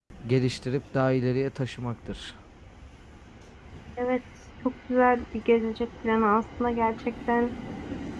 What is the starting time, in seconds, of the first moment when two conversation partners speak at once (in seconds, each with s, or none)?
none